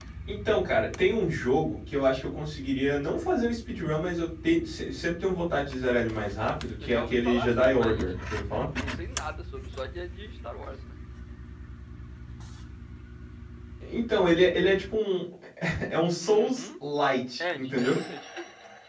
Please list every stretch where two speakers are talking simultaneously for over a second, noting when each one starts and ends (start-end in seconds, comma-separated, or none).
6.8-8.1